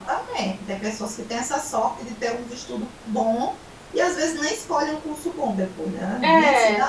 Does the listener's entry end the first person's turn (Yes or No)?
No